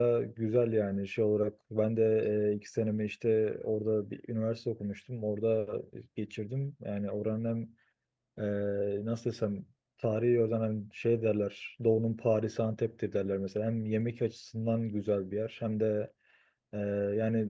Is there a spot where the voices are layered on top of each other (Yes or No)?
No